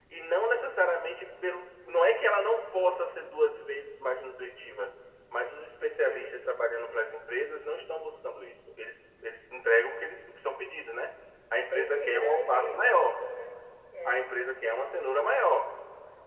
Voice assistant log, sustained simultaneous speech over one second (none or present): present